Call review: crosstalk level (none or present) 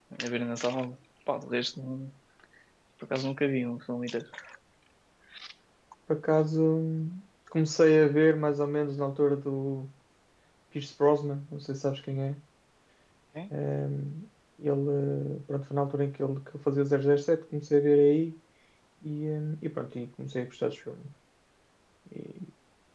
none